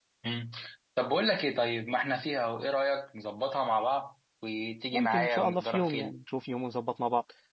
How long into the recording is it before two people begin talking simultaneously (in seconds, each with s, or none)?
4.9 s